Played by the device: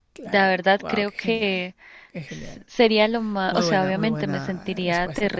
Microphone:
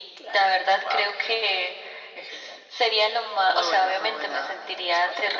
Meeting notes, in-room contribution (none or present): none